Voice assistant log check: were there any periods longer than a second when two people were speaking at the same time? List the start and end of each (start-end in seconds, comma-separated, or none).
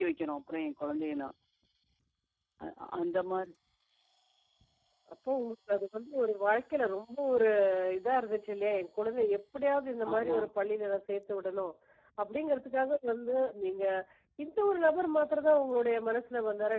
none